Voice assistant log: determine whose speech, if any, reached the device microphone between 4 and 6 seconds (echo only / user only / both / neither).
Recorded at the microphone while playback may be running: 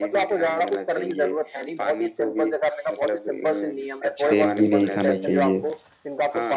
both